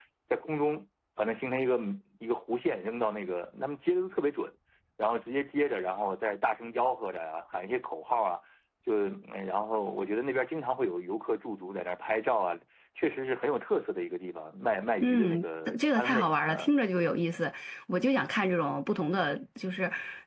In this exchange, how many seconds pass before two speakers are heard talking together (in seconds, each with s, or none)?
15.0 s